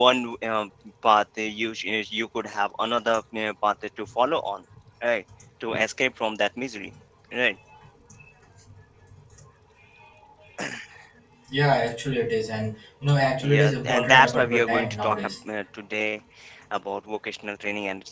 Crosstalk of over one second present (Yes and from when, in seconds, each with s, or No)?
Yes, from 13.4 s